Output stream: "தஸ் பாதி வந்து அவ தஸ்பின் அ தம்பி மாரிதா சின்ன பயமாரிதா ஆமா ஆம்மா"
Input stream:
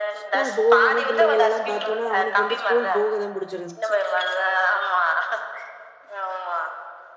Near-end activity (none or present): present